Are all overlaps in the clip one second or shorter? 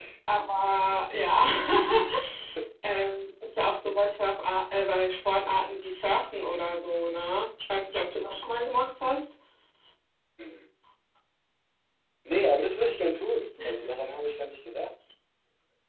Yes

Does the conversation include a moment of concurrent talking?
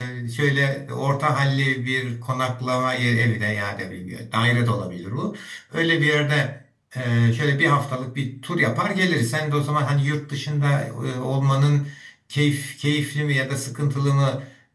No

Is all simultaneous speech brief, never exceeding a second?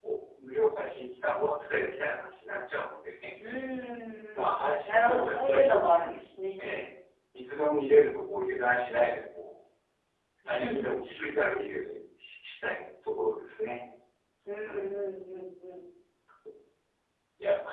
No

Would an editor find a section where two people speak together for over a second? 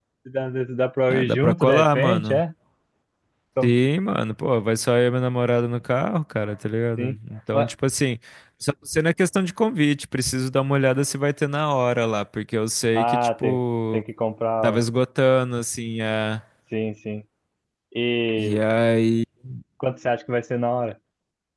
Yes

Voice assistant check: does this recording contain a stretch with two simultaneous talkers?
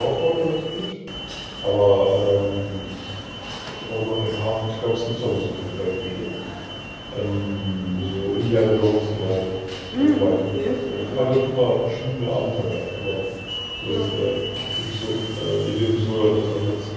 Yes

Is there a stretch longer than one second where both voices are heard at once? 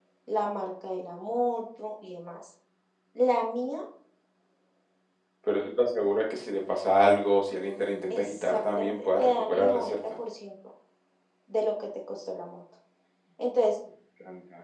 Yes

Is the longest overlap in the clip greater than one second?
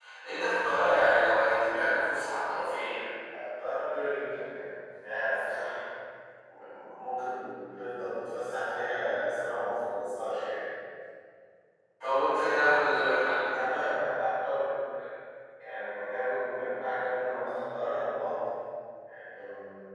No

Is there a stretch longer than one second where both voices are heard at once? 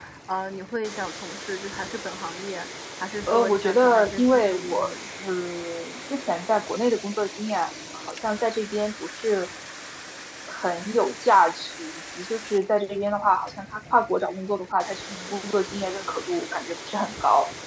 Yes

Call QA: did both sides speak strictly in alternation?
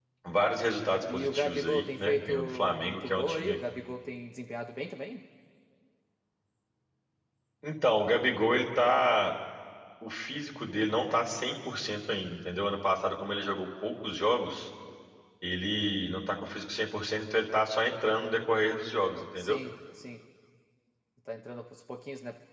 No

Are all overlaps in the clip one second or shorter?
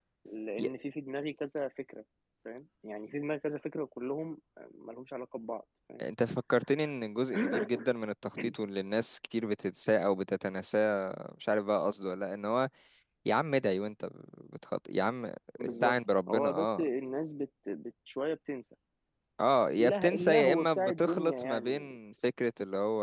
No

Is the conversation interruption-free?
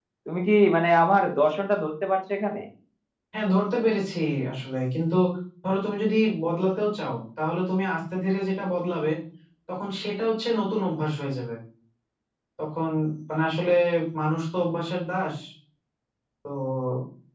Yes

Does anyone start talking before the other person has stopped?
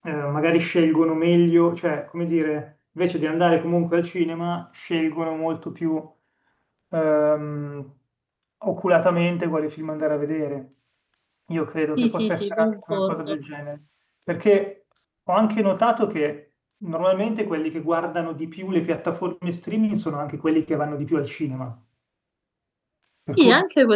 Yes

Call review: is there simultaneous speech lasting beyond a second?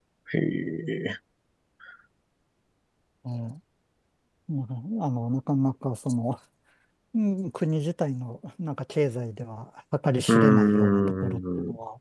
Yes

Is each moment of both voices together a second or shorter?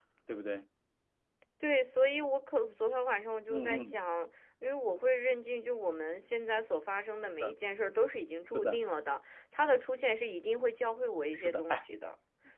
Yes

